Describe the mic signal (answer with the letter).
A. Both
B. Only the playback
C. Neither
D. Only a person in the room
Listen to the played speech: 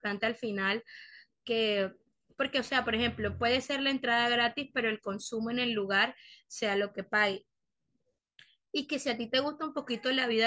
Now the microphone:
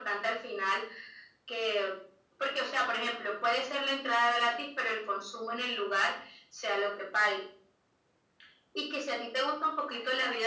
B